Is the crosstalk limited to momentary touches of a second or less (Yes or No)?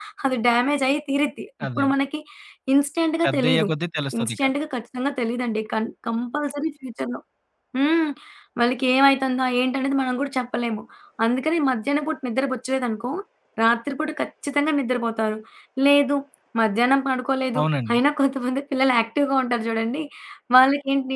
Yes